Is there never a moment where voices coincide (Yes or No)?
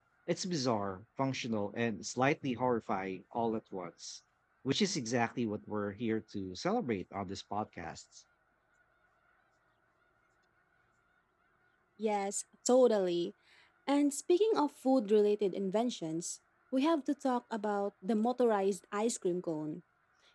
Yes